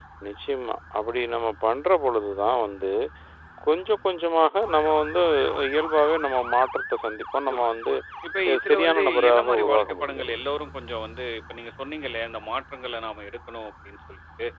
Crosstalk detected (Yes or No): Yes